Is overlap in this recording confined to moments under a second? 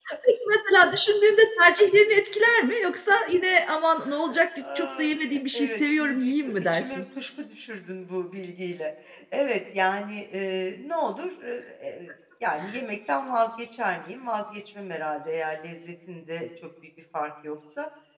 No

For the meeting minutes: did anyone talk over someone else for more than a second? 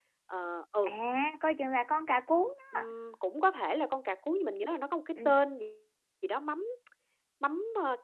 No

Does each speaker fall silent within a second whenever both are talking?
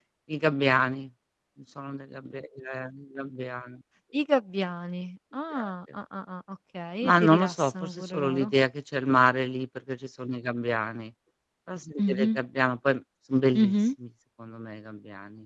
No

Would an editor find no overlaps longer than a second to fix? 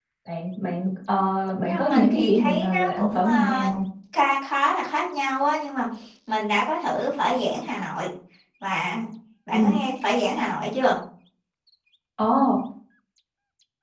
No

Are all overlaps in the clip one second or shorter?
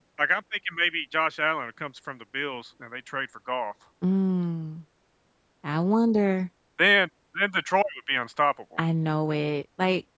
Yes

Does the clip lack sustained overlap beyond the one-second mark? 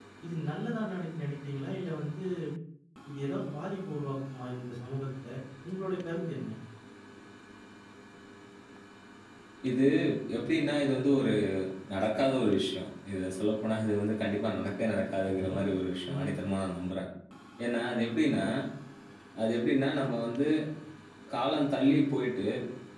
Yes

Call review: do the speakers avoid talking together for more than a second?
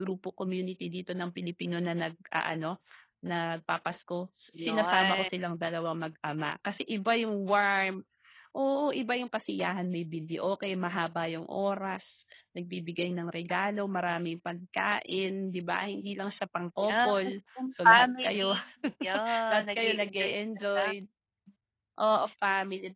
No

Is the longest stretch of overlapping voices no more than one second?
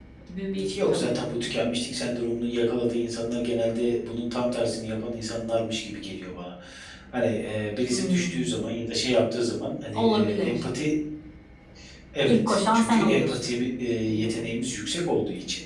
No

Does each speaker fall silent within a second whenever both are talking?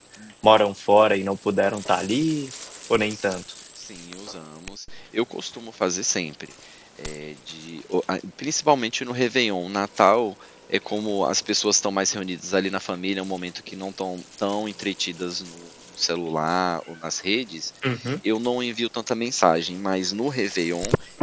Yes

